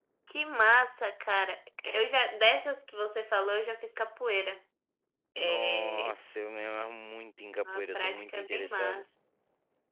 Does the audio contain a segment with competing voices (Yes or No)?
Yes